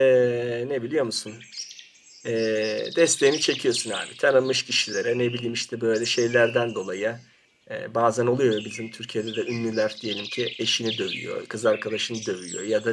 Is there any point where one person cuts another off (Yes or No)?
No